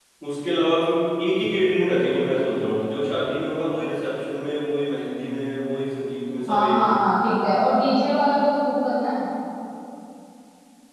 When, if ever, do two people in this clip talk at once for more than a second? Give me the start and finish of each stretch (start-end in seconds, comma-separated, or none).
none